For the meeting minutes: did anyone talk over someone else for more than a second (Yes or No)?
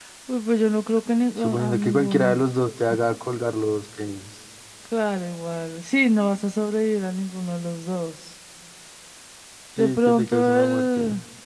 Yes